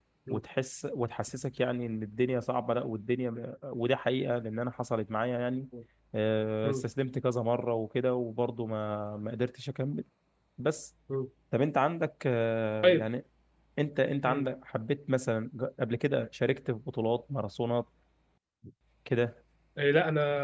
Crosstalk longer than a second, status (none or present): none